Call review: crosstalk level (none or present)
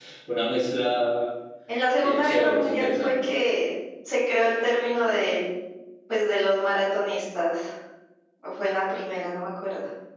present